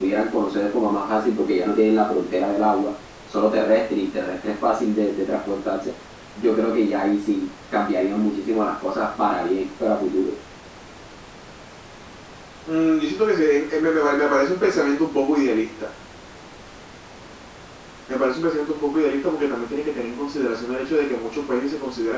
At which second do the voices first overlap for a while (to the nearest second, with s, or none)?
none